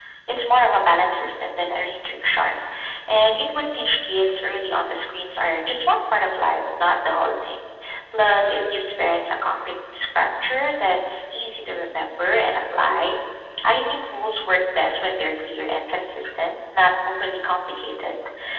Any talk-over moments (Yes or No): No